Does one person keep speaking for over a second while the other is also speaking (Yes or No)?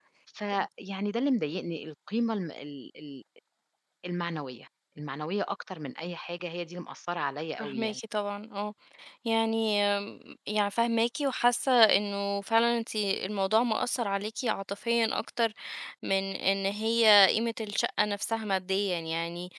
No